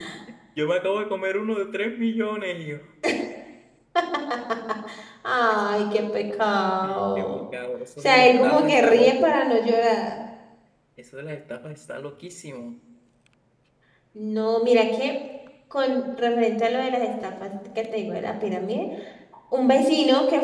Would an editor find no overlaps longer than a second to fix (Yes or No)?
No